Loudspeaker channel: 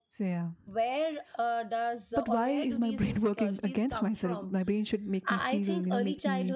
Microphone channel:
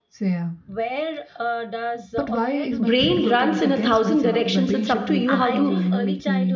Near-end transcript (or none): brain runs in a thousand directions. It's up to you how to